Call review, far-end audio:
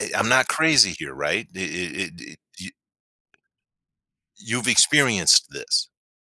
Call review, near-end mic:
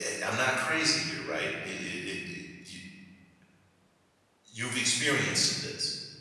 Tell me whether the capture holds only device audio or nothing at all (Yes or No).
Yes